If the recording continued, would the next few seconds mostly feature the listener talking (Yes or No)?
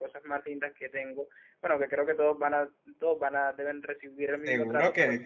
Yes